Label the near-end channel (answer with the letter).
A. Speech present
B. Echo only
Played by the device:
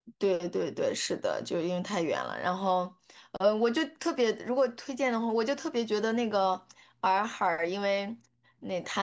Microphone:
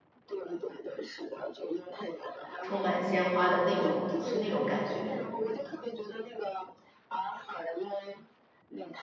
A